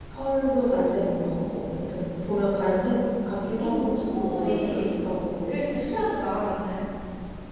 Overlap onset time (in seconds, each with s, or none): 3.6 s